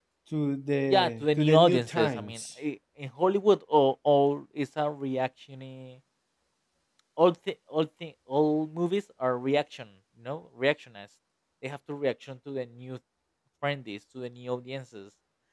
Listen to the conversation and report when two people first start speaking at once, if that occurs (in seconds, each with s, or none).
0.9 s